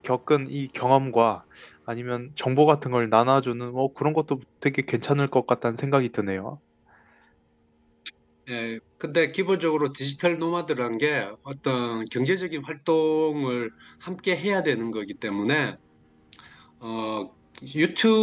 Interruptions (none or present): none